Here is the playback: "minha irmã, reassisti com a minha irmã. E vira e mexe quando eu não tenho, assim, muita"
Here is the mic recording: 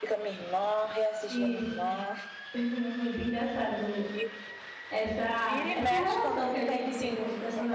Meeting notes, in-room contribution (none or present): present